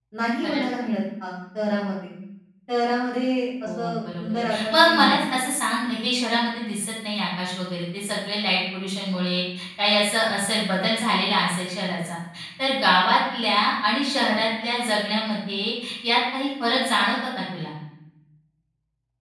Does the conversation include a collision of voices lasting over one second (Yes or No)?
Yes